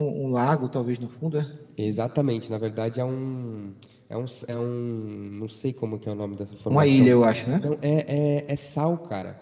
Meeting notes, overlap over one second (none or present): none